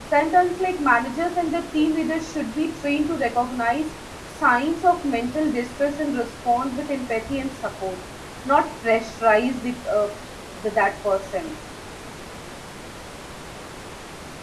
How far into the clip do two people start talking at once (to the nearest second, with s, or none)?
none